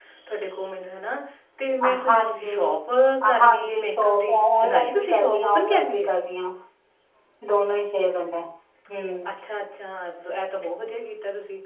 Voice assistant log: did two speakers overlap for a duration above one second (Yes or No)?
Yes